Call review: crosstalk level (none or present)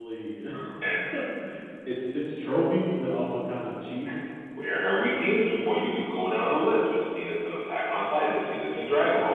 none